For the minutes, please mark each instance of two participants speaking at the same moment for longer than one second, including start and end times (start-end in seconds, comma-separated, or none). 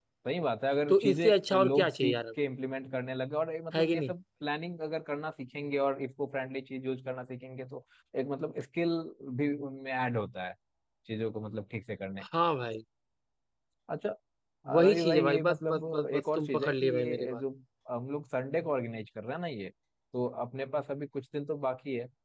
0.9-2.2, 14.7-17.4